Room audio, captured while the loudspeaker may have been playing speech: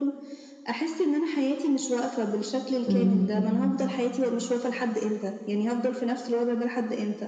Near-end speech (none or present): present